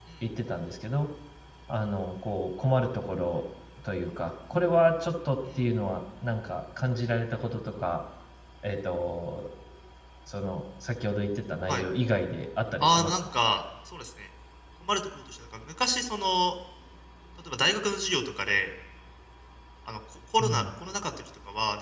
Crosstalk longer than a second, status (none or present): none